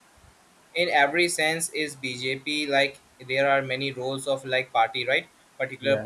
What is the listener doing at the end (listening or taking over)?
listening